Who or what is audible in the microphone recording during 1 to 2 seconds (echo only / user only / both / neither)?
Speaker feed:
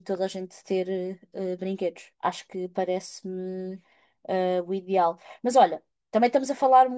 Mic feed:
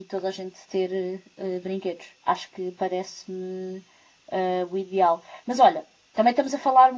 echo only